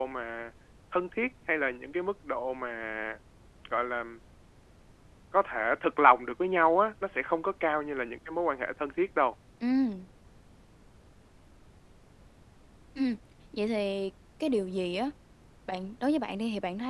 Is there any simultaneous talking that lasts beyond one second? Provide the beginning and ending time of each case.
none

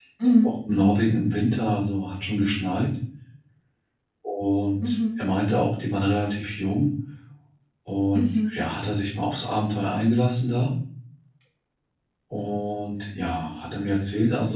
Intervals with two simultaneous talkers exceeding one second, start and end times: none

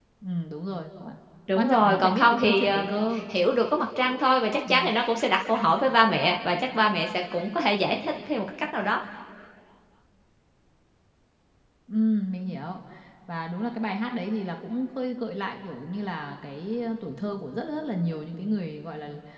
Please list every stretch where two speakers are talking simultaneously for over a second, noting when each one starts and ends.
1.5-2.9

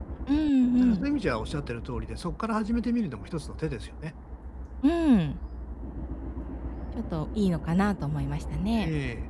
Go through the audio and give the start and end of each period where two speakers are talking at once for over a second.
none

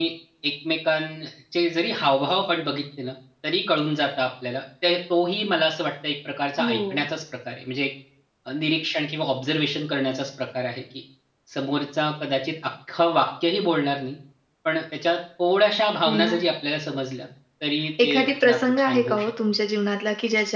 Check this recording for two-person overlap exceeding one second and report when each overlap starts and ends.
18.0-19.3

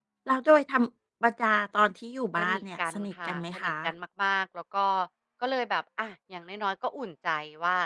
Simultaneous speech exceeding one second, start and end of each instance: 2.4-3.7

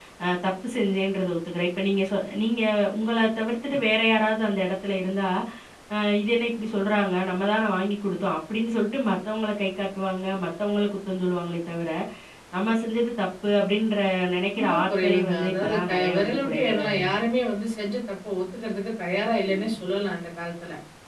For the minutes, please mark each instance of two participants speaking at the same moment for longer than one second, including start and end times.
14.6-16.9

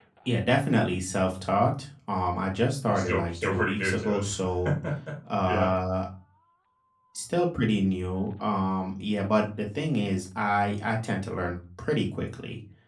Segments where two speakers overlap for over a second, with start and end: 2.8-4.3

